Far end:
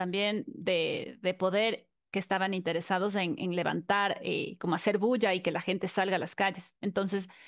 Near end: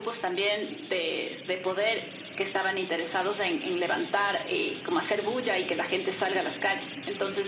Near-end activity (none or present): none